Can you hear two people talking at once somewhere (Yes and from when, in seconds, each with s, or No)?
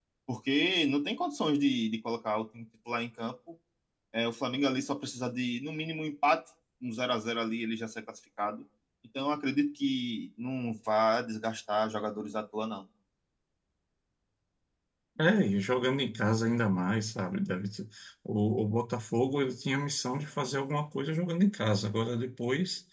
No